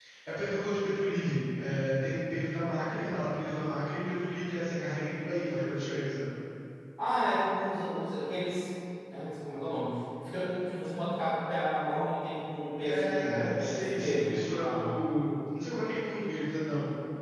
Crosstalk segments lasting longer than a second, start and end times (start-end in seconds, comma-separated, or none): 12.9-15.0